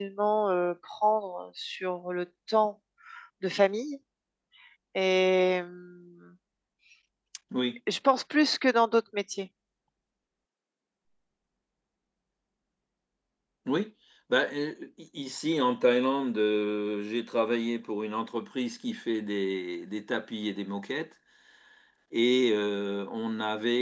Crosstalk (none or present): none